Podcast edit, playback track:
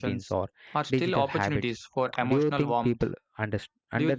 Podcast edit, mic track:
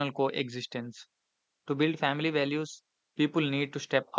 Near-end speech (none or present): present